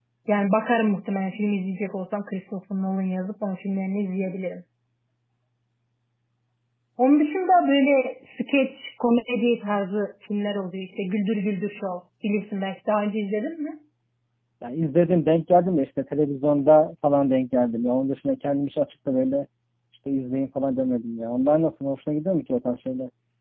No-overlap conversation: Yes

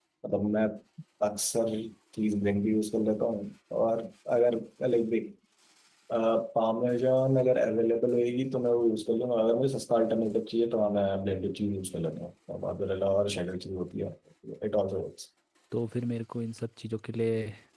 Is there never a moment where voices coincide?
Yes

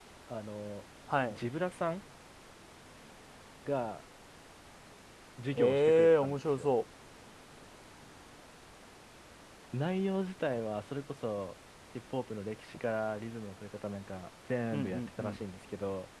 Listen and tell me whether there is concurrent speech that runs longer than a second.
Yes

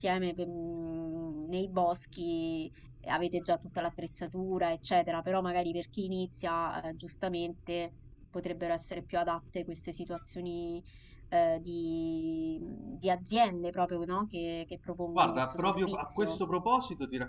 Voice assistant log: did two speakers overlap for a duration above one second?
Yes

